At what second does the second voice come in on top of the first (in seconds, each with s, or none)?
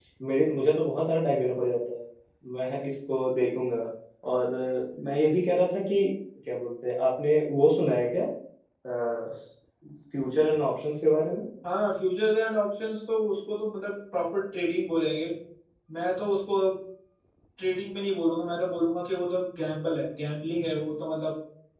none